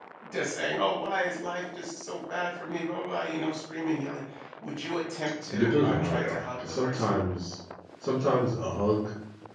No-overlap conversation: No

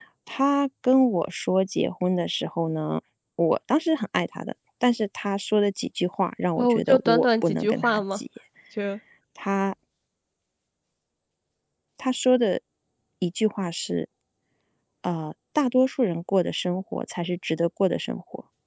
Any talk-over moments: Yes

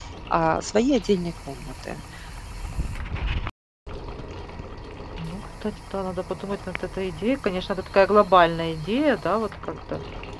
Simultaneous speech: No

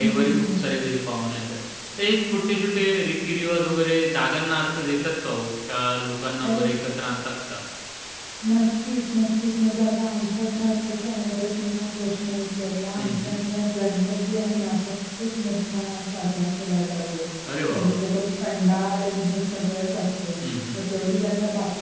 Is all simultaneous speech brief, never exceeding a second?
Yes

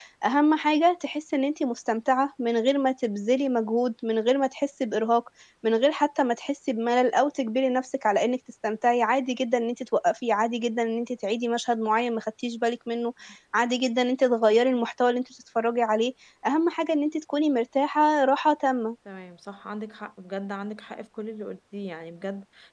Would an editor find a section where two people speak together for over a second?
No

